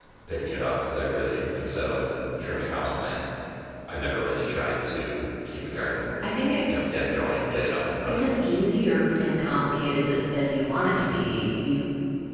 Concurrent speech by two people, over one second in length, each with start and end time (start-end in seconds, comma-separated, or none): none